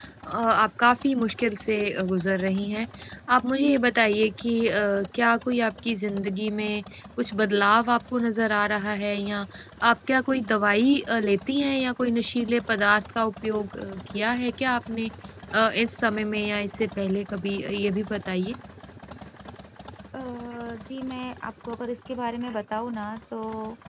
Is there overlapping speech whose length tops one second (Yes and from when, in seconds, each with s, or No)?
No